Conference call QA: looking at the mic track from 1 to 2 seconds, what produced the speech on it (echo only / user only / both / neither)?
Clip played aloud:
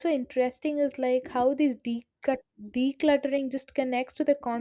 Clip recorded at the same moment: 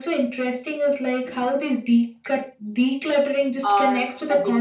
echo only